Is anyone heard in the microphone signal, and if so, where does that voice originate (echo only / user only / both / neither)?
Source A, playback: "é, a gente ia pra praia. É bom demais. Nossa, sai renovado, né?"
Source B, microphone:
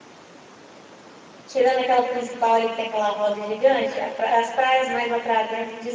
user only